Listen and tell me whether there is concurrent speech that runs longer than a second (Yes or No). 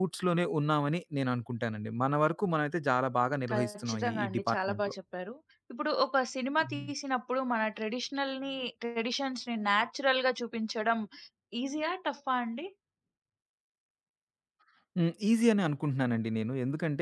Yes